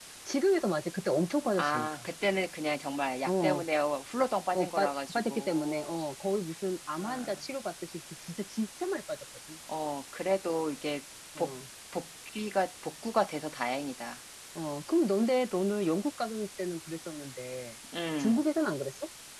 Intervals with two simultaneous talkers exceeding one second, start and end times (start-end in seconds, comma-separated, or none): 4.5-5.9